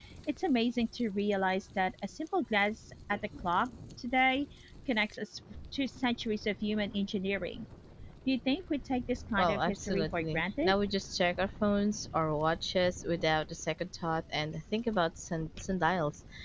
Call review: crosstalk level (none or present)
present